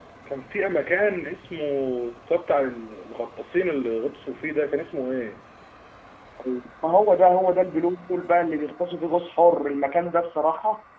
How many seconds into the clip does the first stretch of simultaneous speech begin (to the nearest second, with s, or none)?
none